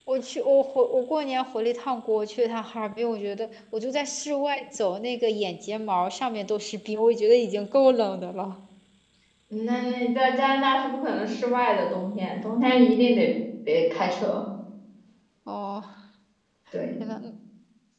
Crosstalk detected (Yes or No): No